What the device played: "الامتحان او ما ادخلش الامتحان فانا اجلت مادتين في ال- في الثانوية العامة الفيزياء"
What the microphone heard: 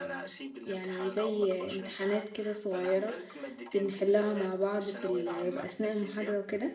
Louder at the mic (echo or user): user